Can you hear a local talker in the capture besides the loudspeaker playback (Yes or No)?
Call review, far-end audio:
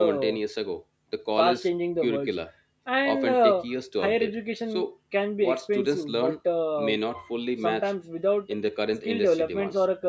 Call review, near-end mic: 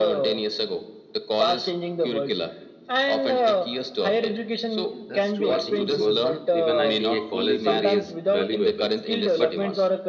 Yes